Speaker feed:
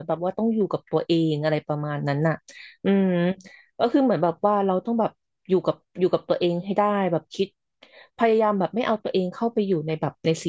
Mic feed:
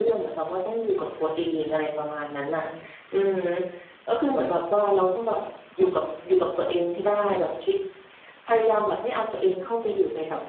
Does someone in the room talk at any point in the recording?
No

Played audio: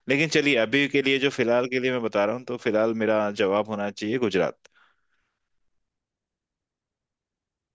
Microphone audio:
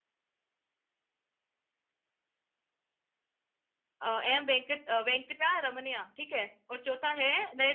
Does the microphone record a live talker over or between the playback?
Yes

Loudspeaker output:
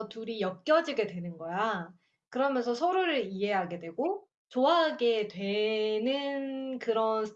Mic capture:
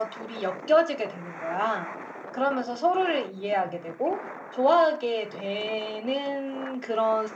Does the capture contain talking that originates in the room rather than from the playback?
No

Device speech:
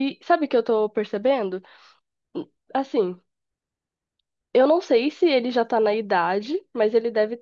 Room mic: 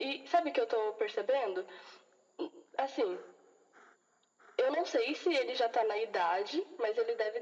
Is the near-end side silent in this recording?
Yes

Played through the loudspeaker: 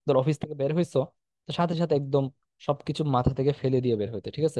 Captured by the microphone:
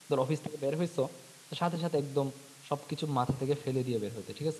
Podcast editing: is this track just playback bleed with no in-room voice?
Yes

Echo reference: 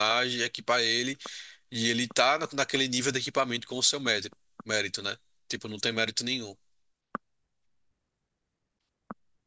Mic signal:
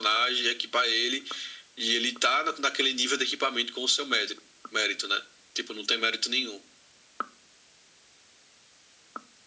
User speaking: No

